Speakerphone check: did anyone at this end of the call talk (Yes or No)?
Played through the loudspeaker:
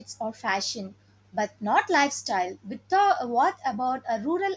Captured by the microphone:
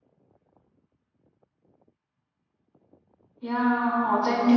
Yes